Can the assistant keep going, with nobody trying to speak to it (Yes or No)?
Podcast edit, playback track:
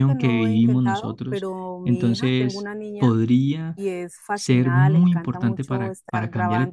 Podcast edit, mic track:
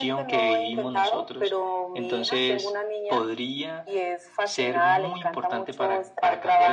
Yes